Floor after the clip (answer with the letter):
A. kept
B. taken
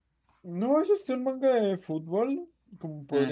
A